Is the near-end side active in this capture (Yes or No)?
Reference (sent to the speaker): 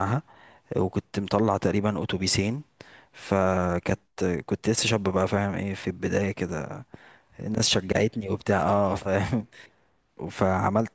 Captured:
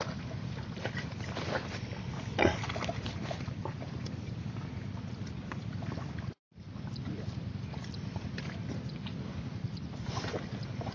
No